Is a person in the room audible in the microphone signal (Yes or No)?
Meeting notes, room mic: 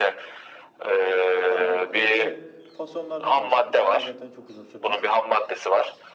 Yes